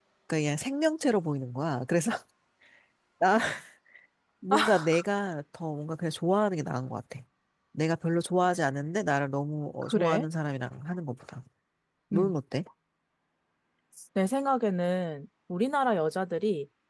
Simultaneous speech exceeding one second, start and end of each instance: none

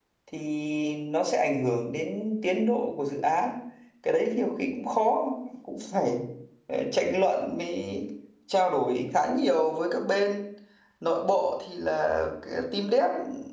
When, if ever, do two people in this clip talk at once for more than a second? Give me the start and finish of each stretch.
none

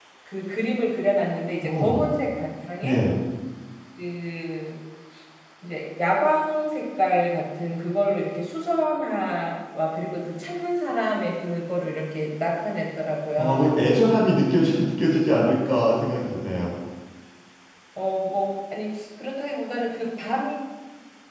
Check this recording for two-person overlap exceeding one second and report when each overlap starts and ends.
none

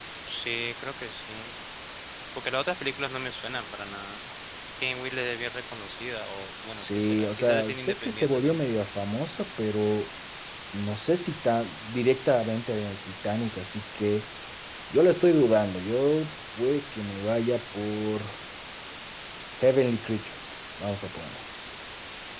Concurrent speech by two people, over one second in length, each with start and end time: 6.8-8.6

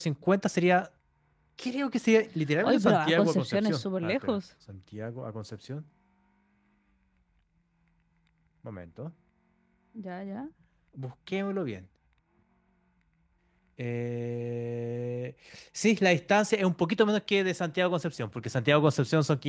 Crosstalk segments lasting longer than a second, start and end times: 2.6-4.4

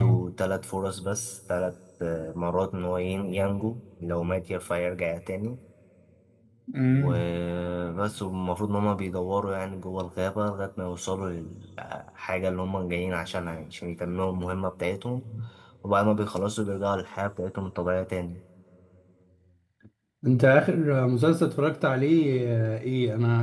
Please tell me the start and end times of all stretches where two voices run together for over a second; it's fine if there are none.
none

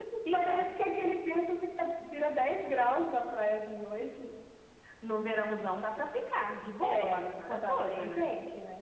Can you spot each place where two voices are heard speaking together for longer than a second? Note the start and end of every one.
6.8-8.3

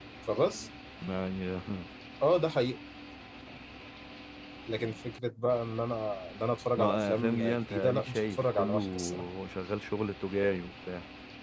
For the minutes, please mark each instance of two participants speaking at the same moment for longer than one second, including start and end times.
6.8-9.2

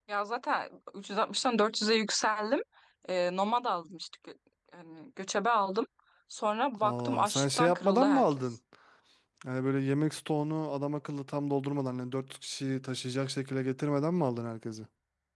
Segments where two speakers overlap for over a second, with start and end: 6.8-8.4

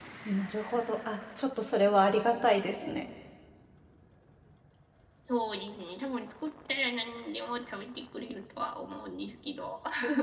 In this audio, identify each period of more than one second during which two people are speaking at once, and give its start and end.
none

